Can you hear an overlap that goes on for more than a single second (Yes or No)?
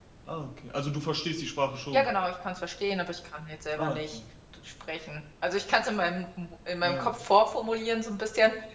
No